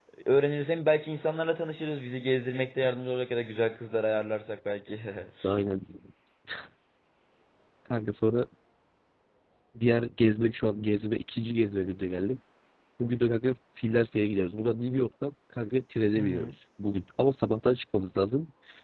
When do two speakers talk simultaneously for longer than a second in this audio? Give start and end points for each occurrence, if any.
none

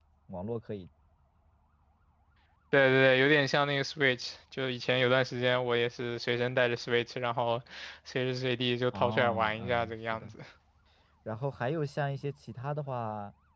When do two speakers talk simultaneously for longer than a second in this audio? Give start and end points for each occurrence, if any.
8.9-10.3

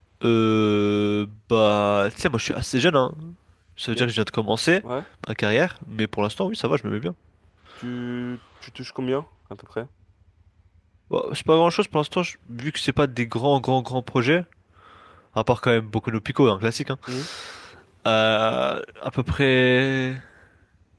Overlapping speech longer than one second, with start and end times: none

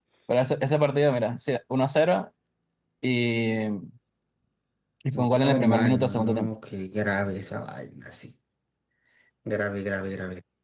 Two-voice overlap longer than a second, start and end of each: 5.1-6.5

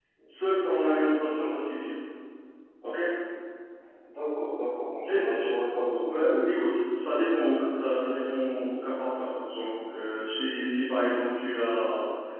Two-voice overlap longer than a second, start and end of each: none

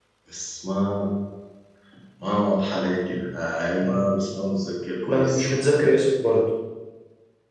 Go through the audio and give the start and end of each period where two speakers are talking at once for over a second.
none

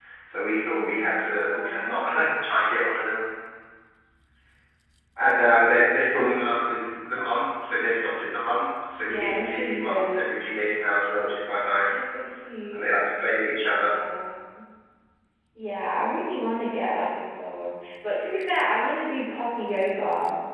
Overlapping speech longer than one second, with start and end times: 0.7-2.0, 9.0-10.2

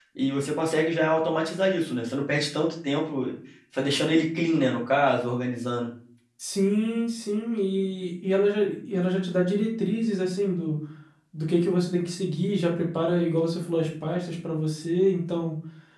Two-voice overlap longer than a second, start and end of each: none

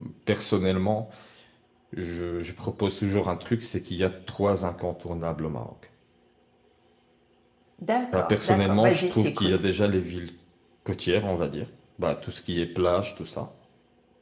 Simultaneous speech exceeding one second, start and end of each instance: 8.1-9.6

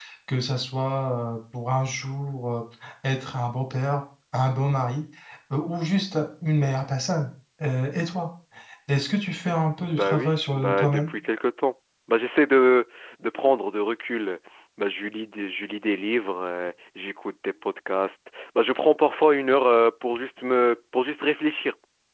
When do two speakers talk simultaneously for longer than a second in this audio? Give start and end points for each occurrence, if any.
9.8-11.1

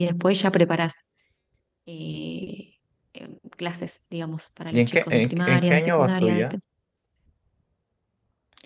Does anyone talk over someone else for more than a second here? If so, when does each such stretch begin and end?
4.7-6.4

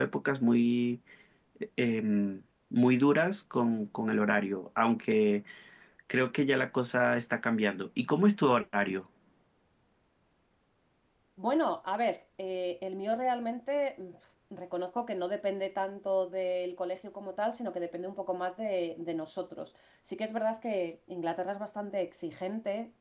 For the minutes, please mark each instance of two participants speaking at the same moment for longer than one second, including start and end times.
none

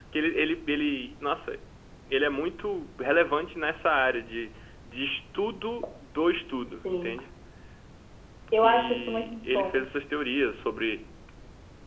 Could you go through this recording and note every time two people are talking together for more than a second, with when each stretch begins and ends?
8.6-9.8

